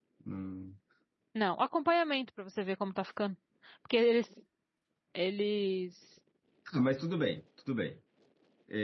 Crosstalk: none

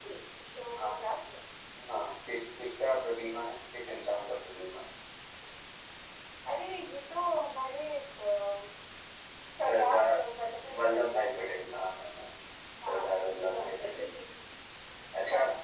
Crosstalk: present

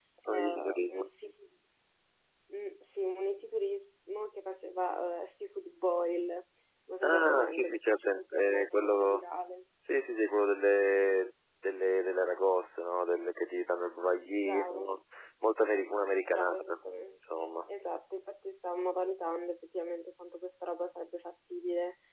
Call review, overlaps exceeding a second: present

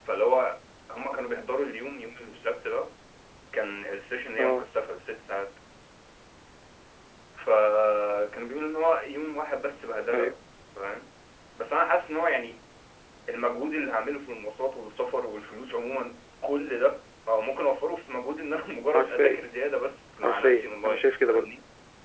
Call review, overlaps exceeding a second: present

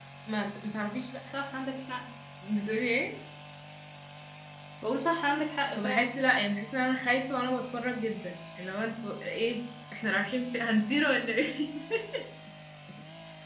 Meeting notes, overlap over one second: none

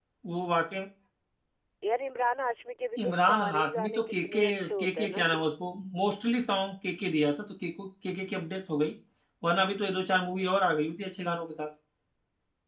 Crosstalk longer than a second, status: present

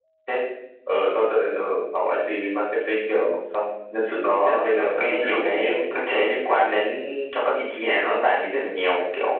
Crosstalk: present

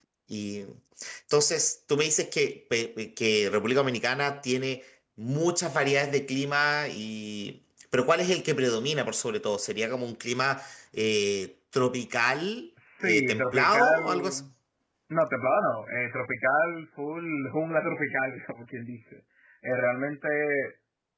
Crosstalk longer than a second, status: present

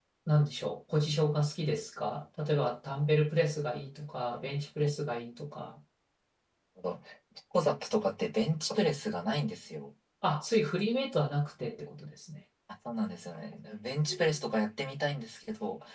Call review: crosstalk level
none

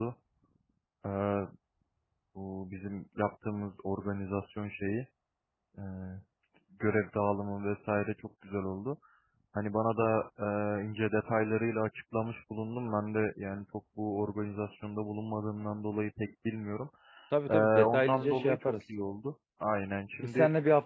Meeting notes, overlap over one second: present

